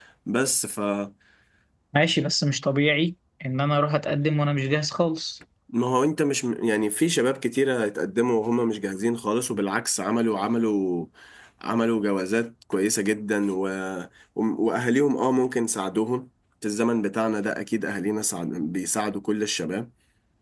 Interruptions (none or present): none